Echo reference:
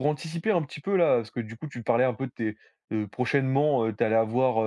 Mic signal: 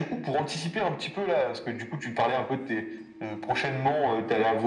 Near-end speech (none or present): none